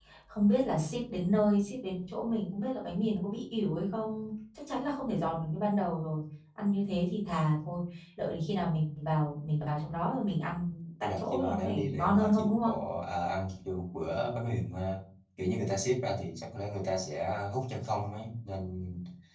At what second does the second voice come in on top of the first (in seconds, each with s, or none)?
11.0 s